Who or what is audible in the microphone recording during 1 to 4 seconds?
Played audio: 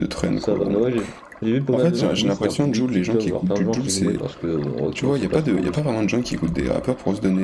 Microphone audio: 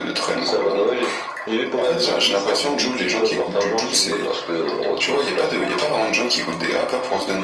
echo only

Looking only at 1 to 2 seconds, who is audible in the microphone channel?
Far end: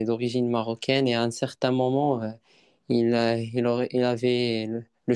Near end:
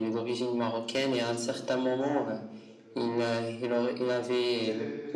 both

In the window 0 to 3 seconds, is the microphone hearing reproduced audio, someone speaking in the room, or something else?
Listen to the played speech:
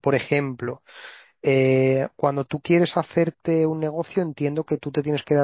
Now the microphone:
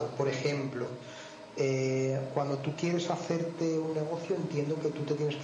echo only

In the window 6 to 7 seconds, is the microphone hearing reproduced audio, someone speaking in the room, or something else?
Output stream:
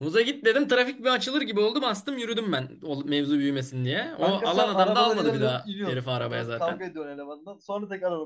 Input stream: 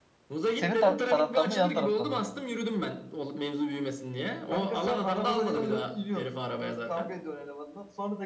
echo only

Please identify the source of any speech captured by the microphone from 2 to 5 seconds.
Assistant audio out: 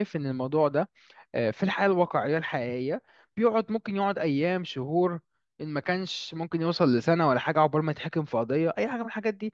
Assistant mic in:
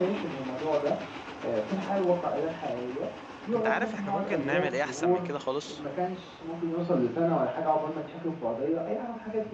both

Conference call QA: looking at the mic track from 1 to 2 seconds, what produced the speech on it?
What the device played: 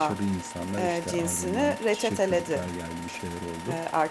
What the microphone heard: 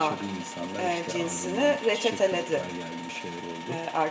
echo only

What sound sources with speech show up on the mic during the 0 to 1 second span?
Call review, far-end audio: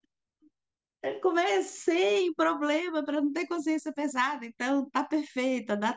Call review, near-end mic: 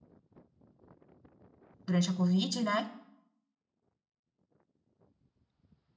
neither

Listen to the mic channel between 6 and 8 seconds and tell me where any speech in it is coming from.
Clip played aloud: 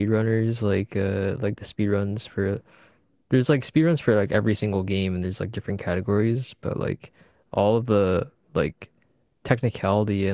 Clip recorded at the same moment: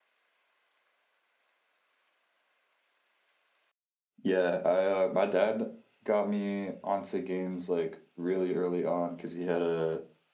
user only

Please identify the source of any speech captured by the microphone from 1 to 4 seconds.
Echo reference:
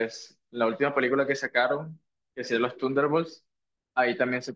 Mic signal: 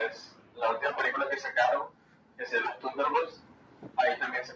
echo only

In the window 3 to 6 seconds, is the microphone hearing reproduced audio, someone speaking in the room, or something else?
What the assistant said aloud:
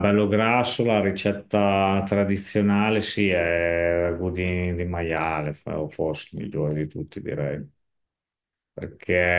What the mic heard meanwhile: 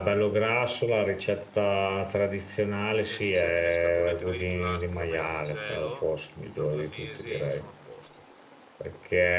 both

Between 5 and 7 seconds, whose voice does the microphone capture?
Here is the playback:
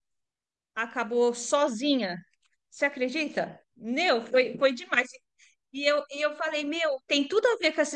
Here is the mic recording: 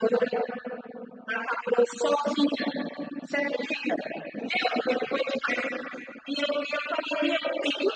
echo only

